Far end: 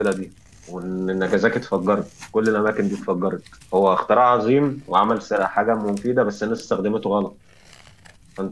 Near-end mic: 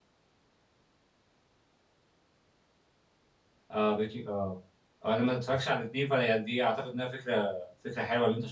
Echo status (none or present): none